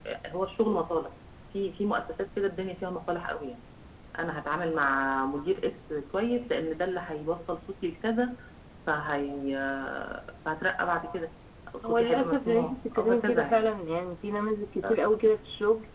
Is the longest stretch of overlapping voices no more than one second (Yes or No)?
No